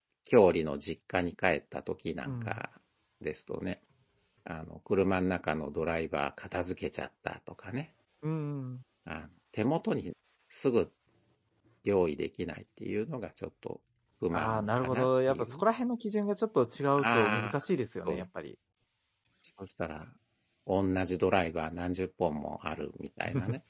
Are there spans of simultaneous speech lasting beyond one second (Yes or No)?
Yes